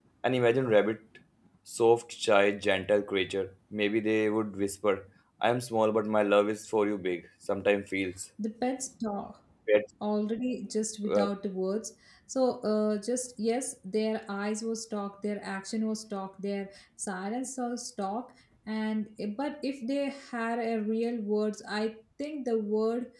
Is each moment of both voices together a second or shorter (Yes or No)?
Yes